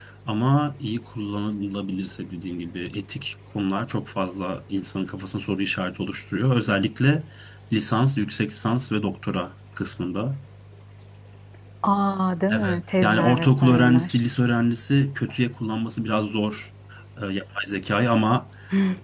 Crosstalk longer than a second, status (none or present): present